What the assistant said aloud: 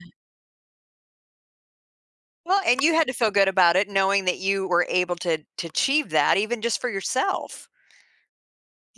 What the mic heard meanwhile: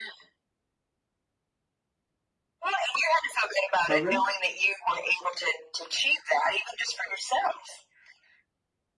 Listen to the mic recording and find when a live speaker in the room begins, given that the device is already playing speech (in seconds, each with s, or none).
3.9 s